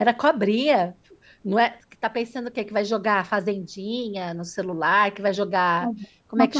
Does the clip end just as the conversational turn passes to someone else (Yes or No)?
No